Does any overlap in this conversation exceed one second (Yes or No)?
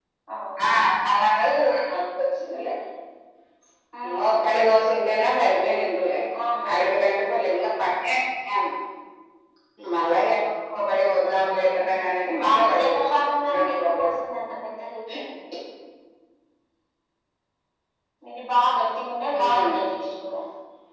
Yes